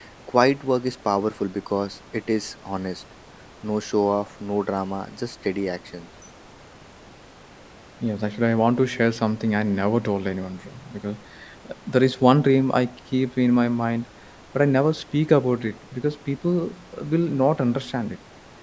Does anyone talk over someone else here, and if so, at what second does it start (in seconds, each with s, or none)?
none